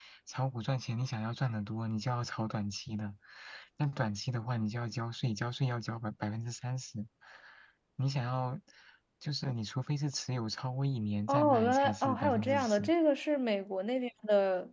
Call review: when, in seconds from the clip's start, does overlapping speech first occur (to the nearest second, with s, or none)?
11 s